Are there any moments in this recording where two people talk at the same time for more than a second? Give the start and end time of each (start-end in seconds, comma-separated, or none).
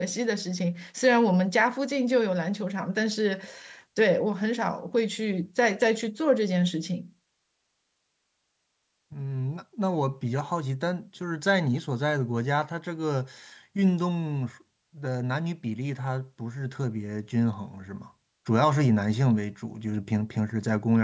none